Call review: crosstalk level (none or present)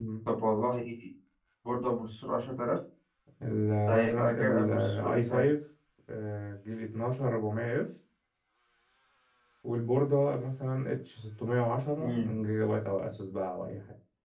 present